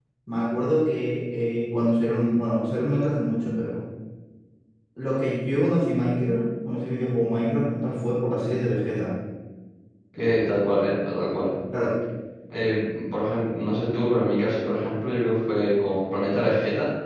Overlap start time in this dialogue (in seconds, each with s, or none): none